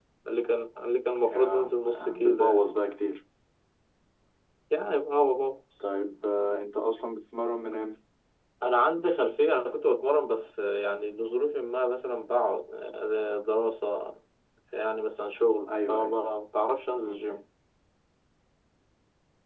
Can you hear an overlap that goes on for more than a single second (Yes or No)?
Yes